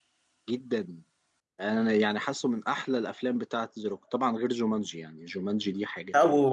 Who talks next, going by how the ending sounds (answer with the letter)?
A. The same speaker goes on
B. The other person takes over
B